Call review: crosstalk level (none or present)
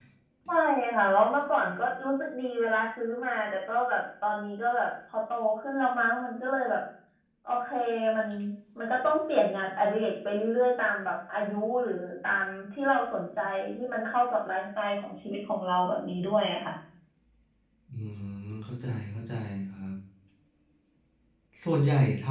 none